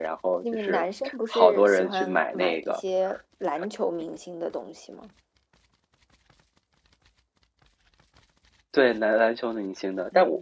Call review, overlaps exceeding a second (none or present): present